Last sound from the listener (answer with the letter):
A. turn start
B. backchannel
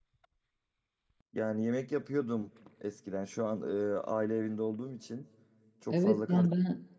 A